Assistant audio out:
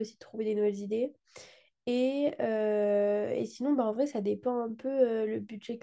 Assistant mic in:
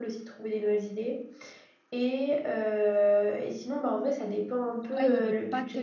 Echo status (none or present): present